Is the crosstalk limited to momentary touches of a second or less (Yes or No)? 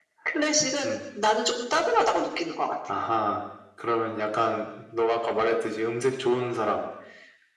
Yes